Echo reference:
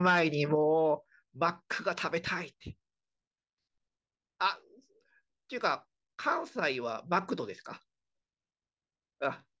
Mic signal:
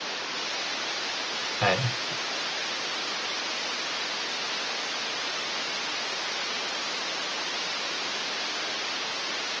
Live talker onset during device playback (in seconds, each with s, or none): 1.6 s